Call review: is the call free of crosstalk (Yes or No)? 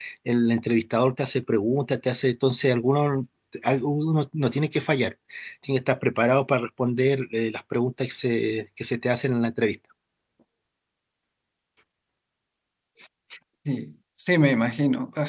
Yes